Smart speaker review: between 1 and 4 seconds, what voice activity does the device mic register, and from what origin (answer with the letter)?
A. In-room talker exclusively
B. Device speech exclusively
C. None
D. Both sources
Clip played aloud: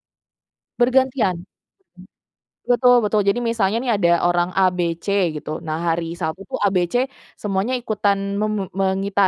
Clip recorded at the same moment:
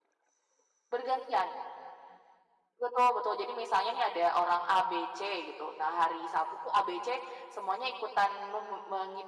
B